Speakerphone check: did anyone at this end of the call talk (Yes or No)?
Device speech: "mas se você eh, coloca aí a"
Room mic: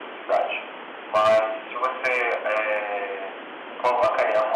No